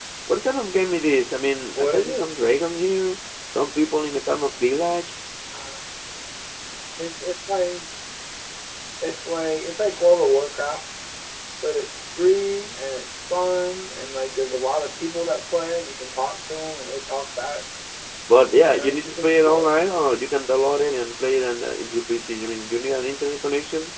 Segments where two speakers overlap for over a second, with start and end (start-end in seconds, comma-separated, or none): 18.5-19.8